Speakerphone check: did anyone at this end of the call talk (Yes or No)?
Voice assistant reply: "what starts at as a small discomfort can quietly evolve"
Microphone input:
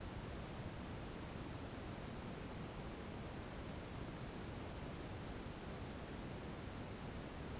No